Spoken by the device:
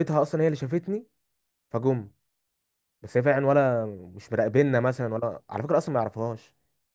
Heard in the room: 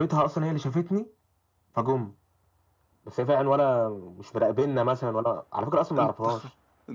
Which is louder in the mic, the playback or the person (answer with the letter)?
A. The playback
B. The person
A